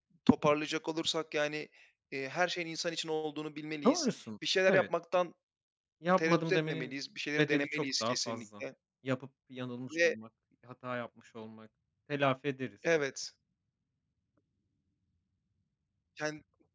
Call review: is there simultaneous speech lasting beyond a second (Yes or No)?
Yes